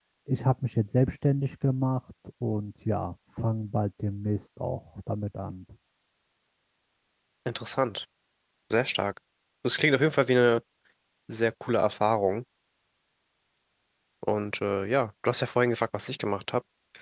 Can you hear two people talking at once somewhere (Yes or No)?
No